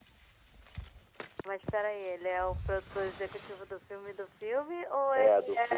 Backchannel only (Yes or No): No